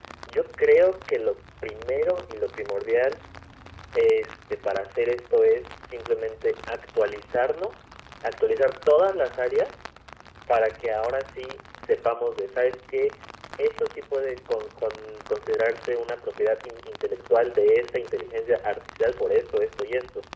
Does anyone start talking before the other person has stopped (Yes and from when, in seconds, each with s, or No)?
No